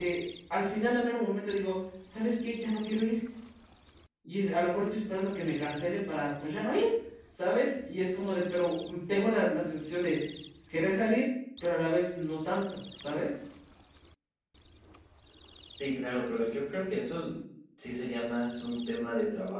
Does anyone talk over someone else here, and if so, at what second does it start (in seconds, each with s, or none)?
none